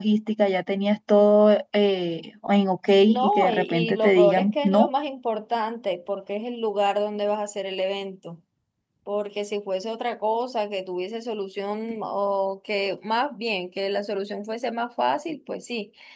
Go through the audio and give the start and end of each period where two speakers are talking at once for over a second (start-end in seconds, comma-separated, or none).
3.1-4.9